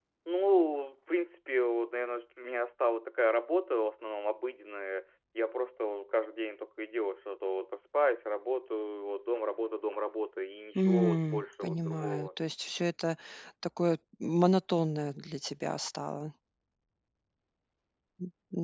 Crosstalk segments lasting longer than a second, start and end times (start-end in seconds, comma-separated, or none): 10.8-12.3